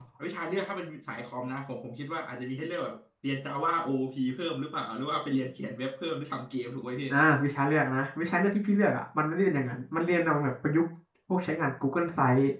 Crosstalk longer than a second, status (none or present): none